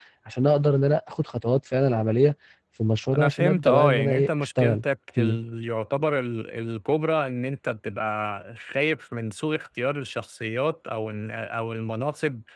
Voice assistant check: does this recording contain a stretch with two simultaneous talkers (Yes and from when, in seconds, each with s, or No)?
Yes, from 3.1 s